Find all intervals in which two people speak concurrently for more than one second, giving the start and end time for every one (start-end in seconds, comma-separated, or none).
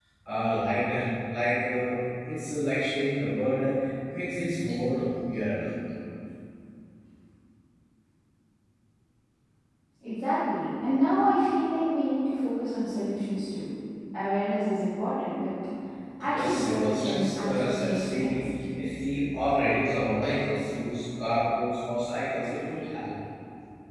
16.2-18.5